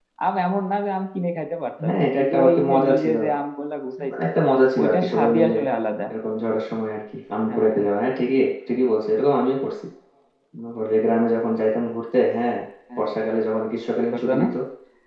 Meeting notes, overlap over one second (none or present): present